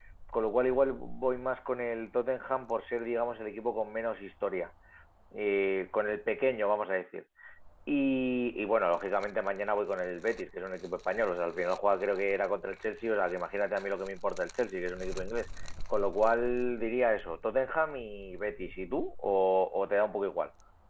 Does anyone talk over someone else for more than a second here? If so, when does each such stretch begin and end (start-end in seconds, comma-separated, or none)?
none